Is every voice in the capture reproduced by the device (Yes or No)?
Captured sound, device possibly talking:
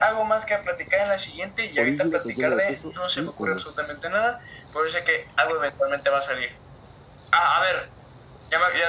No